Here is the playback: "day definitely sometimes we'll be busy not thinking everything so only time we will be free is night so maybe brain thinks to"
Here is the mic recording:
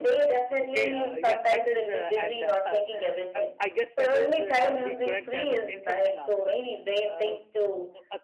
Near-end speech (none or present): present